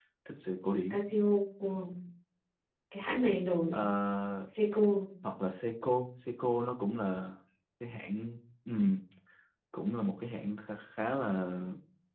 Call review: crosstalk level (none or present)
none